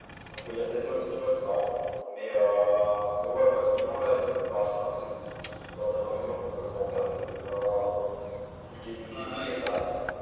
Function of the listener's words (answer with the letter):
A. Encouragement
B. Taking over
A